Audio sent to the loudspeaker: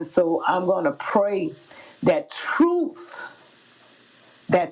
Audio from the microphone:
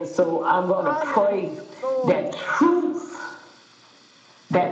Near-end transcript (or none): Hallelujah. Glory to your name.